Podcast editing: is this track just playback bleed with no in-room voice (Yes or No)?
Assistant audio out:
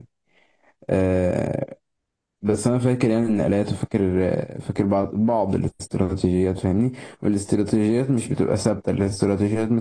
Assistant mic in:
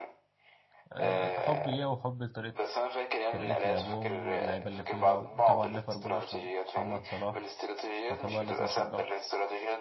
No